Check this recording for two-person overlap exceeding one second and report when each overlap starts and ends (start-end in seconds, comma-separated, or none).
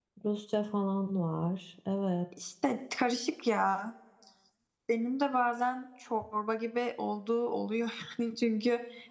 none